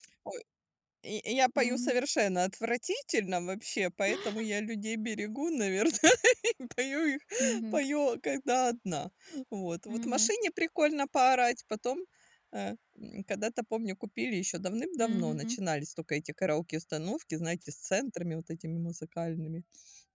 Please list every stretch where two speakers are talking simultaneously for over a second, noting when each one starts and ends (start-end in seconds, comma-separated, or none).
none